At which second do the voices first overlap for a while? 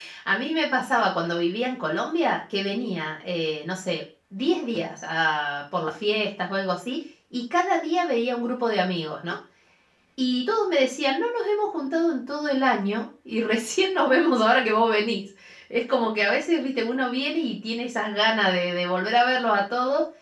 none

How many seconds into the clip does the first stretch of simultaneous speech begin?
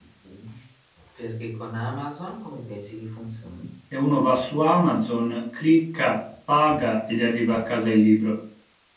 none

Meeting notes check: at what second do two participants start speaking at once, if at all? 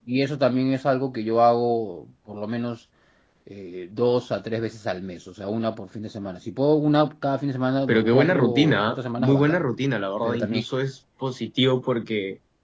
7.9 s

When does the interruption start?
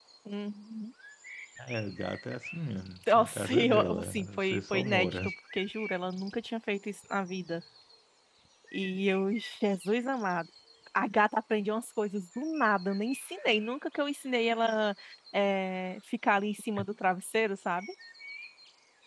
3.1 s

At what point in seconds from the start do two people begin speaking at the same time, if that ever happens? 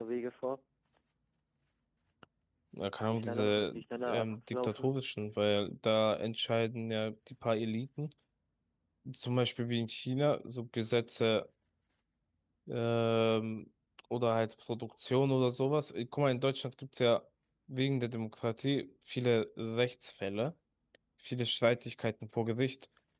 3.0 s

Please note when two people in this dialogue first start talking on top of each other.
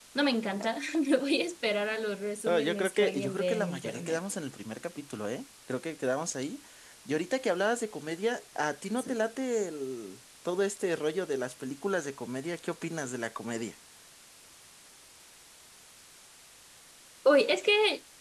2.5 s

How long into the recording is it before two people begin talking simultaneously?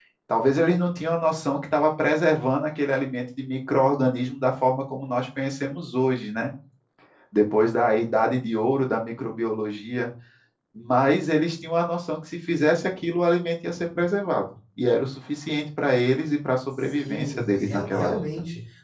16.8 s

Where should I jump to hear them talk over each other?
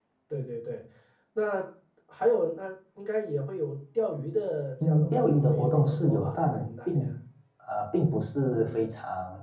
4.8 s

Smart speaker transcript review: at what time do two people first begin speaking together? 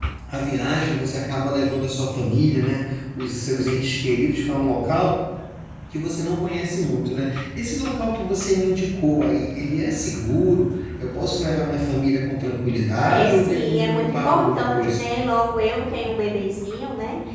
13.1 s

